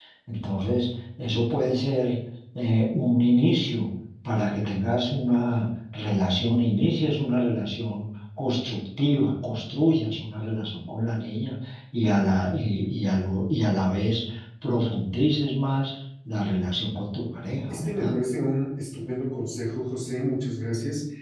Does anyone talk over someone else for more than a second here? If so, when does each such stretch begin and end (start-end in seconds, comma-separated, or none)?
none